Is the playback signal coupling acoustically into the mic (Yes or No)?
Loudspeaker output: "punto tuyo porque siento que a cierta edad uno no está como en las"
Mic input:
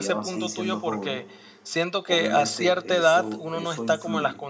Yes